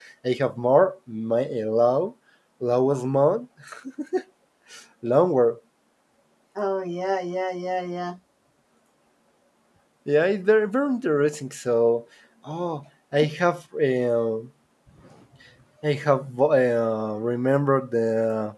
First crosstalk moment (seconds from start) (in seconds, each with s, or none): none